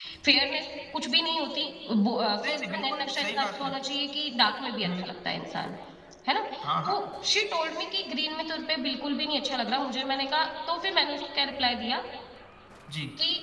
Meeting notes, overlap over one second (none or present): present